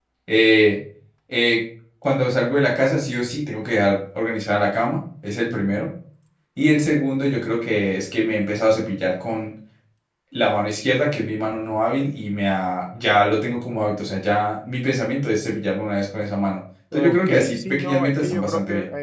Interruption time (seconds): 16.9 s

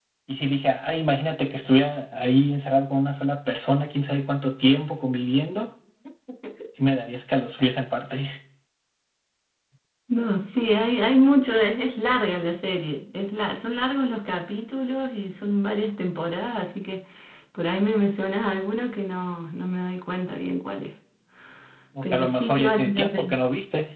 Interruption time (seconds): 22.0 s

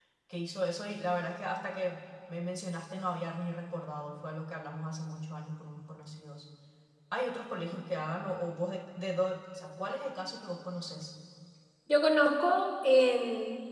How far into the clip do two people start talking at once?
none

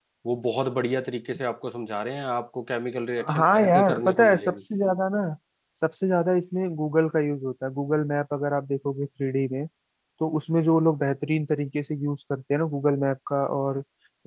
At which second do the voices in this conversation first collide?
3.2 s

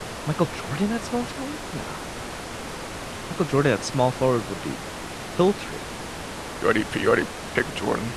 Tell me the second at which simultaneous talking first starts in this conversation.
none

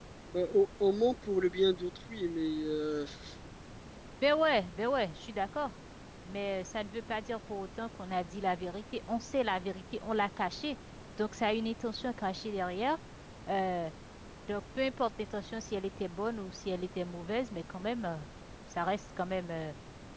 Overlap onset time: none

